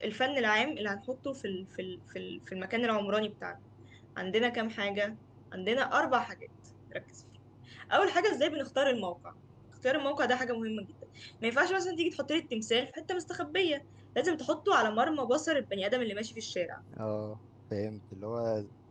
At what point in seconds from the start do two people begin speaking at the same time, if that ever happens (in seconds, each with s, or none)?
none